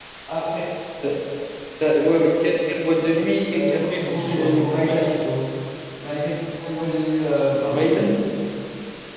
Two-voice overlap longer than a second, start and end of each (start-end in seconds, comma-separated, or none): 3.6-5.1